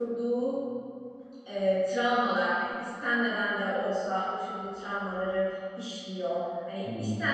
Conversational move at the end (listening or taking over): listening